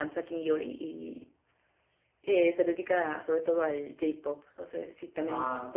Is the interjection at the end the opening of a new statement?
Yes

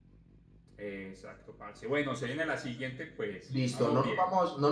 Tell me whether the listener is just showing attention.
No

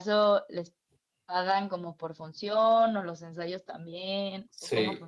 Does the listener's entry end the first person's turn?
Yes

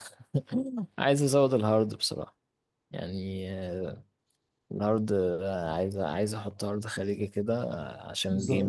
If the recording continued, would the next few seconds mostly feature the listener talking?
Yes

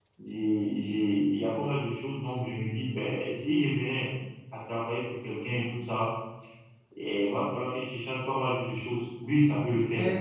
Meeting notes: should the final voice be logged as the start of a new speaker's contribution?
Yes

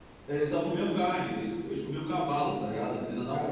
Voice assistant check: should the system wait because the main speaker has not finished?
No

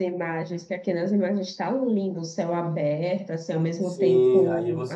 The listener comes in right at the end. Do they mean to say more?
Yes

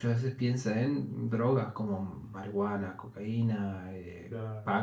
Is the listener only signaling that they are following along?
Yes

